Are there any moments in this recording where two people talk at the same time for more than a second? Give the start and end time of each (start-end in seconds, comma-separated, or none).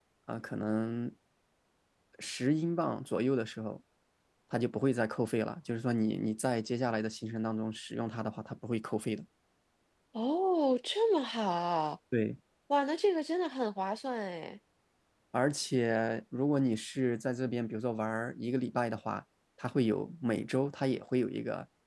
none